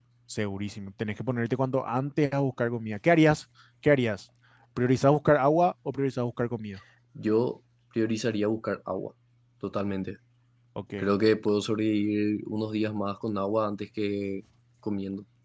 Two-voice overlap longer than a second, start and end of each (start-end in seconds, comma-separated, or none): none